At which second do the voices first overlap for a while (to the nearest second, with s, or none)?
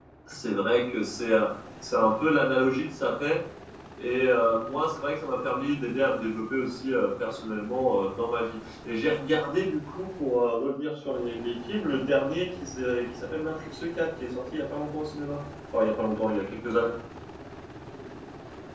none